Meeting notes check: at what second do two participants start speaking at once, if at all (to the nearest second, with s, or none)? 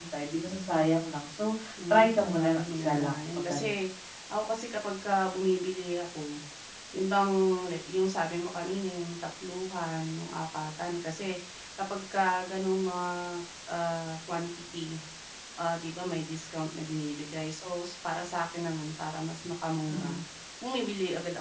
2 s